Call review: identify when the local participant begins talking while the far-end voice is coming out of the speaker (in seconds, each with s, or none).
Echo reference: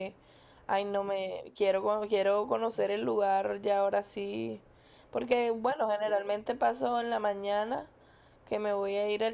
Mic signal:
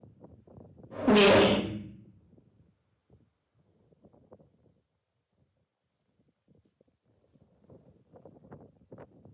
1.0 s